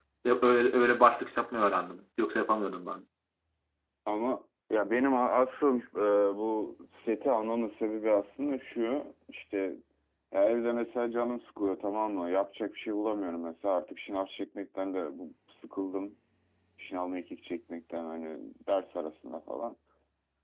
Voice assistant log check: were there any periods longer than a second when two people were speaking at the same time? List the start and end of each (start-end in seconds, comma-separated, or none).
none